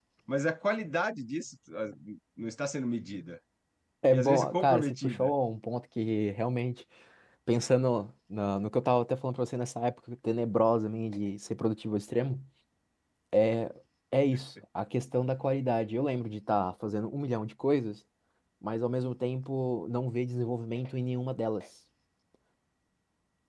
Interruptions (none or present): present